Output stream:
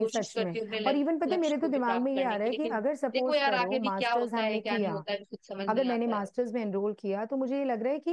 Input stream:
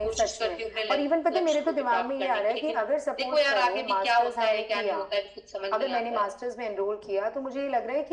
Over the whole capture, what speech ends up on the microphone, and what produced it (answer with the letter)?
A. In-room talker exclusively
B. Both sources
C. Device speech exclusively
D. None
C